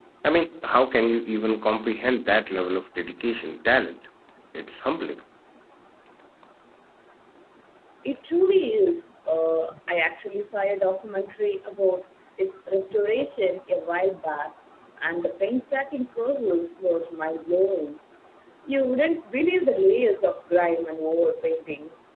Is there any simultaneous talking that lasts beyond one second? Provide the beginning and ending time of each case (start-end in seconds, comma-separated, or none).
none